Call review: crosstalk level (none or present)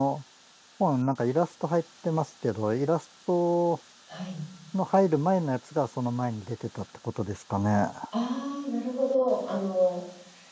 none